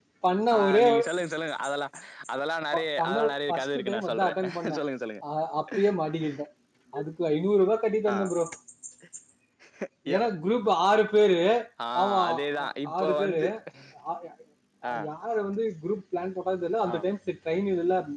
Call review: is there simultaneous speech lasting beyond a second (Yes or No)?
Yes